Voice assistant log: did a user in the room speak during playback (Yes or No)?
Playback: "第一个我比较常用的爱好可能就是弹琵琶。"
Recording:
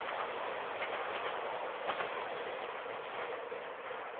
No